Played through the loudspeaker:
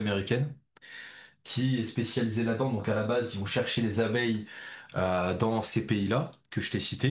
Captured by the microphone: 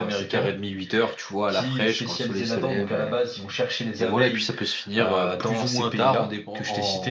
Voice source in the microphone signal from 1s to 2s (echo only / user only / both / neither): both